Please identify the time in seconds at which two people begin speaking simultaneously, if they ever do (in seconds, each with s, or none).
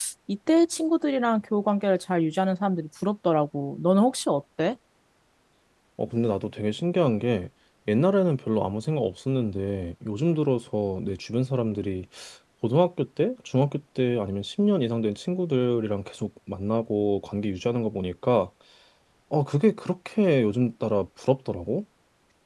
none